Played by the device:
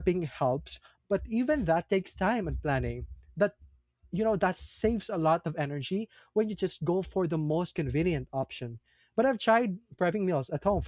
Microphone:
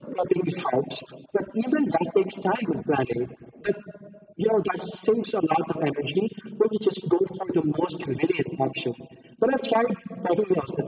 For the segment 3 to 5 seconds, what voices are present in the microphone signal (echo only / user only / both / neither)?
echo only